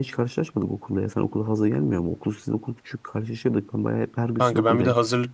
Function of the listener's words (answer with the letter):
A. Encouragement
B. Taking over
B